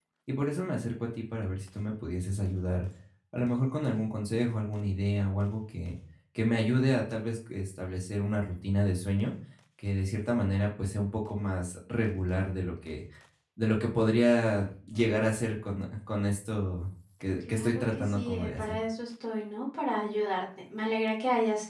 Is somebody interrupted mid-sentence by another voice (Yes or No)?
Yes